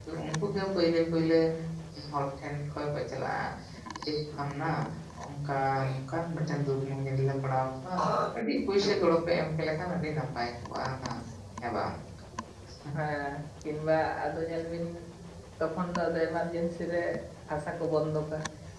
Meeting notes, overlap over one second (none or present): none